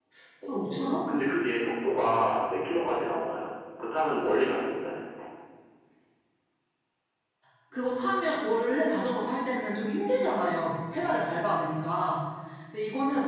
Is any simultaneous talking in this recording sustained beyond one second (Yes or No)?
No